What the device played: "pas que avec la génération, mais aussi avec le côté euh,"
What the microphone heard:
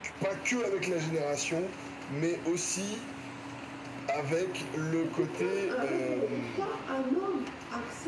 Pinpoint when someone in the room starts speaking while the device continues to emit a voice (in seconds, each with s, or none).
5.0 s